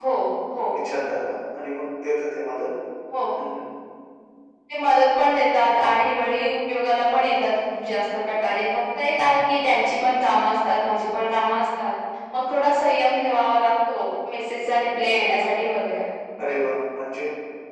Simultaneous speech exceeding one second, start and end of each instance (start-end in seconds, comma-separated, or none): none